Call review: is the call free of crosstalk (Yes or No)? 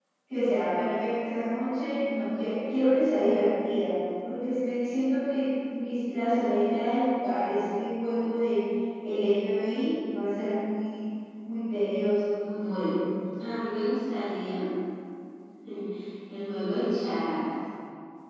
Yes